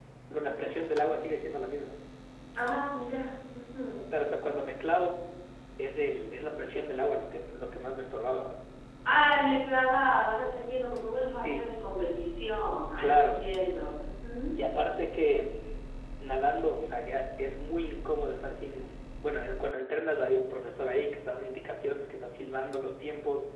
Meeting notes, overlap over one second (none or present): none